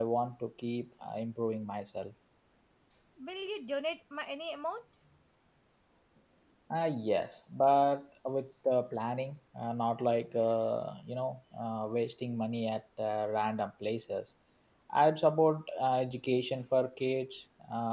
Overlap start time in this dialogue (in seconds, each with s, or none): none